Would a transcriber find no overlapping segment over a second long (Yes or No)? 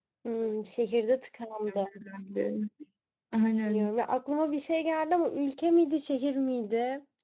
Yes